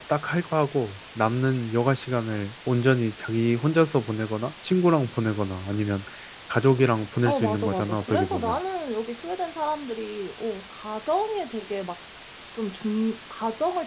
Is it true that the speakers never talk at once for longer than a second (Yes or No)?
No